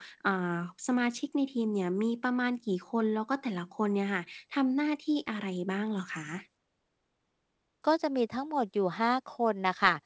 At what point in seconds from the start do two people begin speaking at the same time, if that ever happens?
none

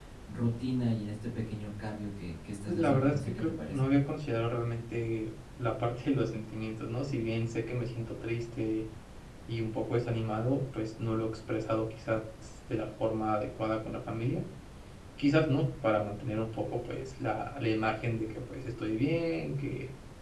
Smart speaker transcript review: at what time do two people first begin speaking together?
2.7 s

